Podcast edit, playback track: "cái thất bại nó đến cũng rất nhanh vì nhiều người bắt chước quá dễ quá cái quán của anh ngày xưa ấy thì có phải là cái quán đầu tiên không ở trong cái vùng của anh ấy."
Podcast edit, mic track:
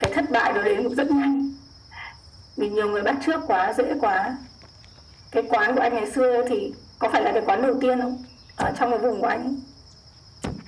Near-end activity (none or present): none